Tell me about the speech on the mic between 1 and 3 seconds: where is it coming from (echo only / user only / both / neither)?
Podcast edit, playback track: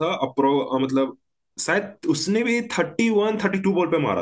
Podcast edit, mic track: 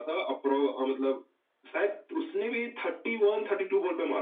echo only